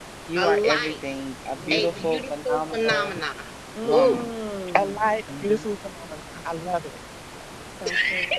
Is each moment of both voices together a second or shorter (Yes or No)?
No